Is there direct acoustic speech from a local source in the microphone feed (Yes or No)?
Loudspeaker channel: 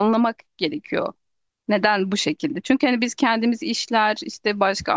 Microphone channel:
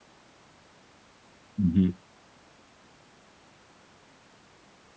Yes